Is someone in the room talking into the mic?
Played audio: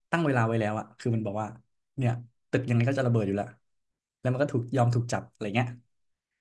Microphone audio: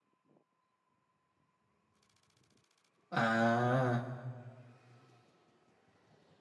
Yes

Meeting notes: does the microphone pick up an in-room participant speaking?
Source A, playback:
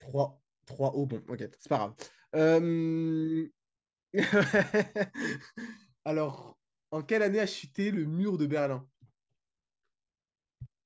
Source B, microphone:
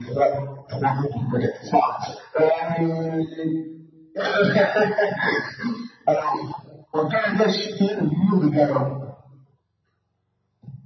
No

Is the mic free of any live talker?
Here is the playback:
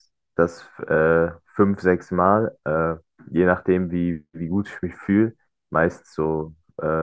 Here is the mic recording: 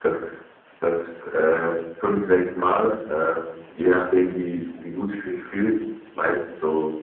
Yes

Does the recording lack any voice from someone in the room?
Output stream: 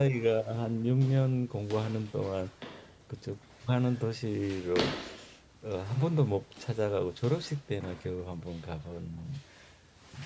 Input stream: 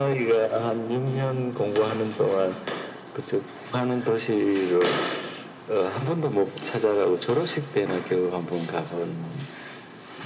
Yes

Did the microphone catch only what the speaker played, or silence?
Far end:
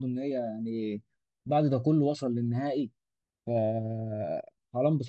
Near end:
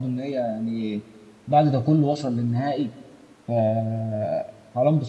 Yes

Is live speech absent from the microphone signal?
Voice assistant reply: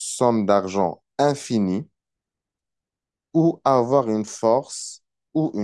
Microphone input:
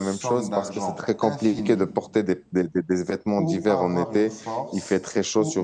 No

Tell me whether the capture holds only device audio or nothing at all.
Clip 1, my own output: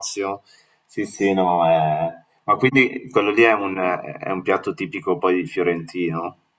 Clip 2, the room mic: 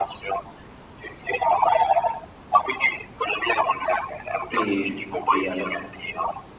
No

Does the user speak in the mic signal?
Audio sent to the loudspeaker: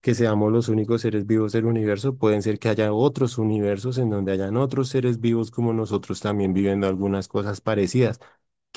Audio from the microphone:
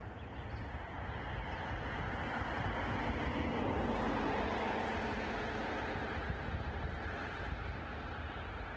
No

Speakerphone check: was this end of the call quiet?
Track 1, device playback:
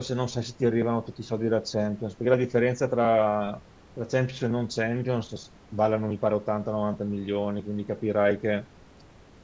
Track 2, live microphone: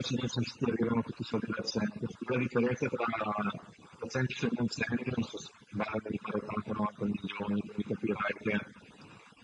Yes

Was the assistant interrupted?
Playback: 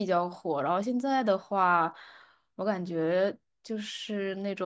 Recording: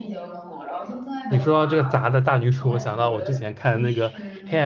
Yes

